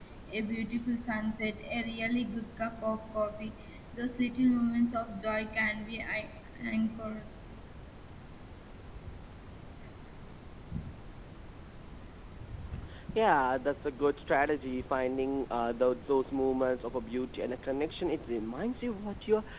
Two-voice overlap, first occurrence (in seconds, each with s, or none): none